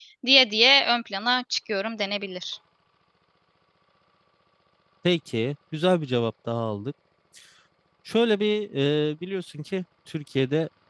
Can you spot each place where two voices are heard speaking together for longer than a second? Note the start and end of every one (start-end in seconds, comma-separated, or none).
none